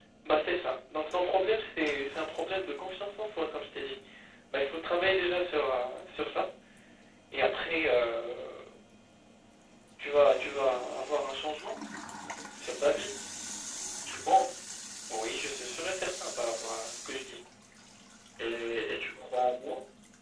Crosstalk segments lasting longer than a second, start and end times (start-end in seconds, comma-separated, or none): none